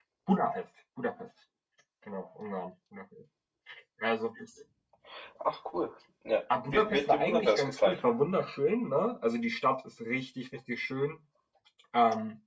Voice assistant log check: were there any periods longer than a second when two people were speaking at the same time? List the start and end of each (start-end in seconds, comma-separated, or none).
6.7-8.0